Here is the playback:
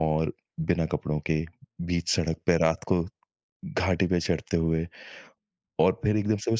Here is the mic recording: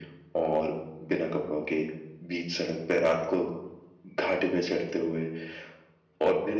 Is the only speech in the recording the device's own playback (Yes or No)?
Yes